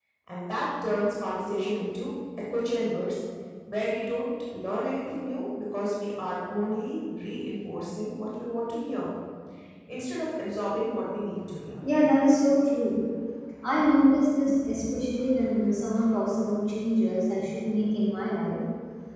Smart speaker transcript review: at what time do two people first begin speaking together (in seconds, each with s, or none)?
none